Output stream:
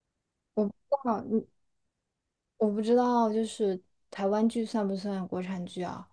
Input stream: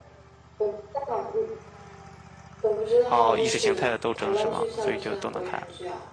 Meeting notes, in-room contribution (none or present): present